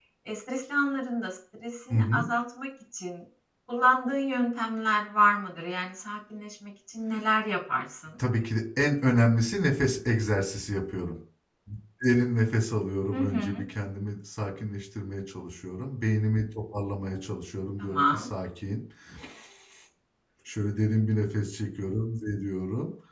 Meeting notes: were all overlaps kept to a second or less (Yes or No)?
Yes